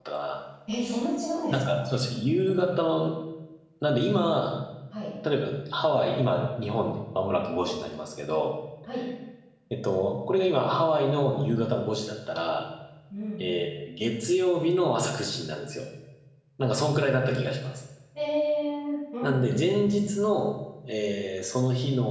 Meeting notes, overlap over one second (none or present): none